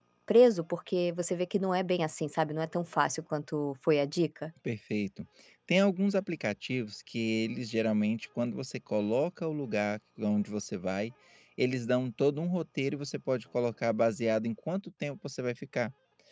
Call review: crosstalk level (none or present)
none